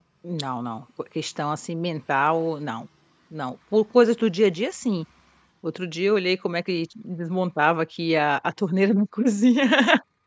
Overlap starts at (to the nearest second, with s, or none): none